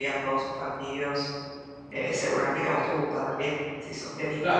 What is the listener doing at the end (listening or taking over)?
taking over